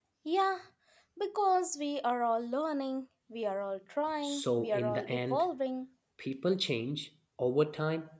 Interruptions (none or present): present